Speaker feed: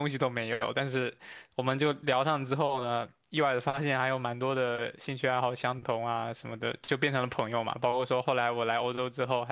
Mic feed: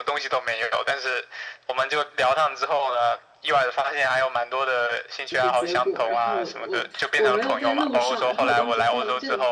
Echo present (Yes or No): Yes